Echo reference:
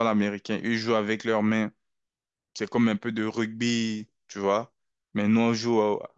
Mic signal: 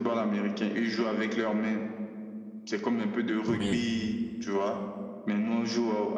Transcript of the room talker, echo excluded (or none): Oui.